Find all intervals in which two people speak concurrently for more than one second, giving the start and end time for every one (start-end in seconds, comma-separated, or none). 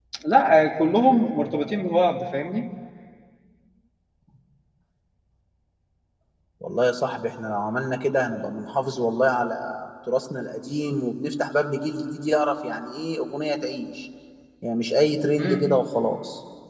none